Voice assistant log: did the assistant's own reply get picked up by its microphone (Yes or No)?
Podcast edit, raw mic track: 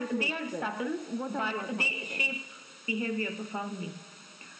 Yes